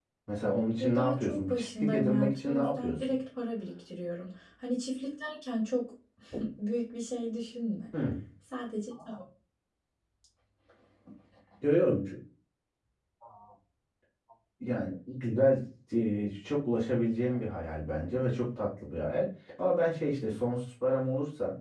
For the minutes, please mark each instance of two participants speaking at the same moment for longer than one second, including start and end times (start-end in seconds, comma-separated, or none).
0.8-3.0